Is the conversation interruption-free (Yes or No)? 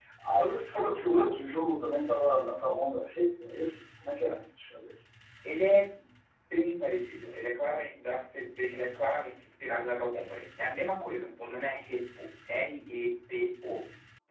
Yes